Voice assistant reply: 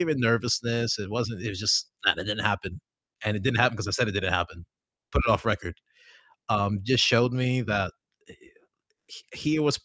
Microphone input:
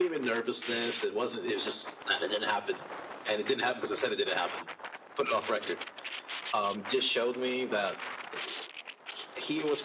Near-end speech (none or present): none